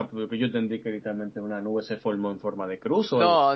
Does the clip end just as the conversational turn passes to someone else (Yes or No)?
Yes